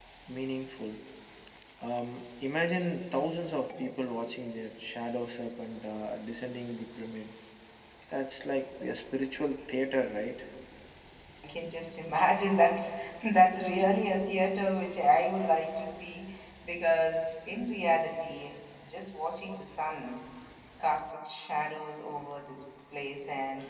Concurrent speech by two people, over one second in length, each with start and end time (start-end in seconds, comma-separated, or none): none